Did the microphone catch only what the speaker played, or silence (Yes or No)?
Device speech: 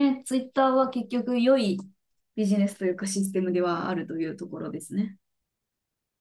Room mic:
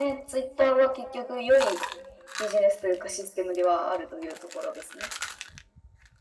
Yes